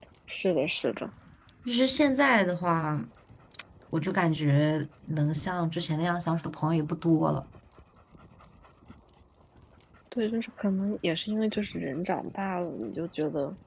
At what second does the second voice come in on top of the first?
none

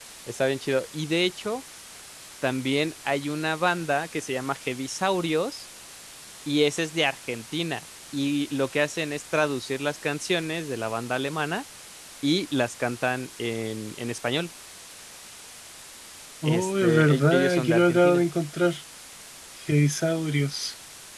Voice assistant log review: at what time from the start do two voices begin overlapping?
16.4 s

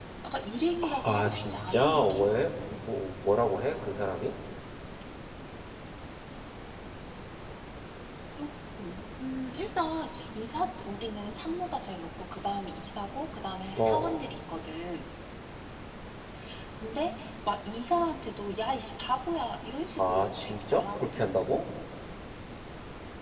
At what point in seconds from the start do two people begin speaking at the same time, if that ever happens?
0.8 s

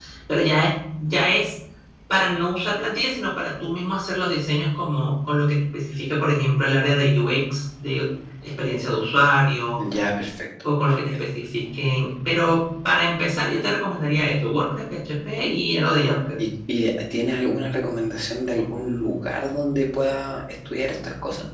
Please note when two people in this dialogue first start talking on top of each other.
none

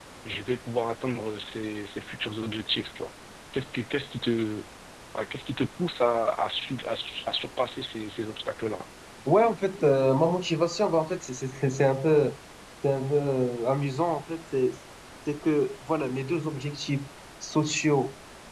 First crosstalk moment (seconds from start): none

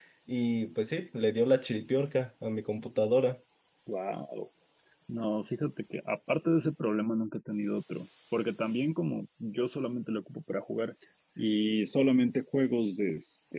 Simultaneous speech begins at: none

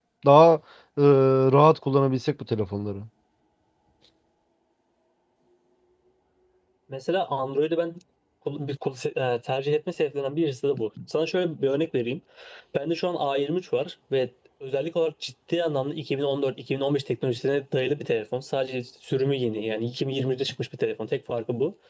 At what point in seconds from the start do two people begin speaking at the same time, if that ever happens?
none

